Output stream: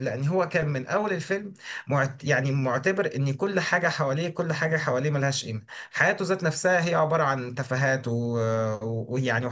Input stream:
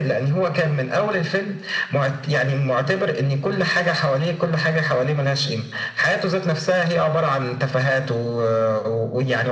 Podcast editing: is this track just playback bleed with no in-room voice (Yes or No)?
Yes